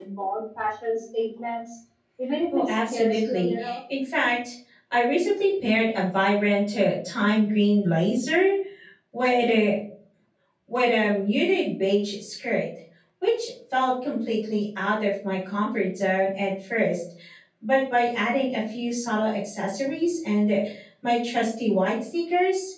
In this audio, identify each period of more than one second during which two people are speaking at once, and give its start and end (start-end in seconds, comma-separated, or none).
2.5-3.8